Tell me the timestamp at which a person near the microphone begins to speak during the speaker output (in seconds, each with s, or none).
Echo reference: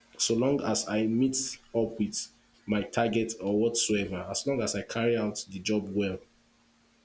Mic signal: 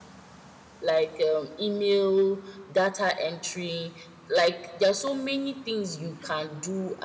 0.8 s